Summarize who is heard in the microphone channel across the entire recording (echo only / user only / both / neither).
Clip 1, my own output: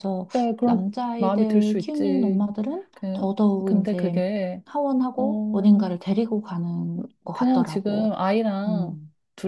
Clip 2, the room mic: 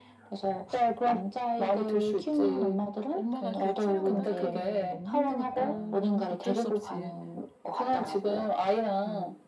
both